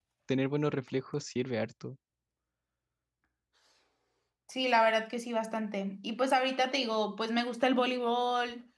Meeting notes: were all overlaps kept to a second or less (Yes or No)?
Yes